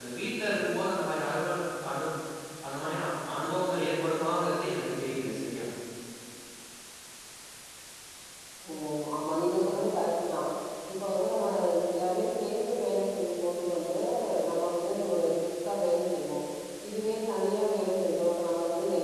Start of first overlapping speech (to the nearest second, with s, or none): none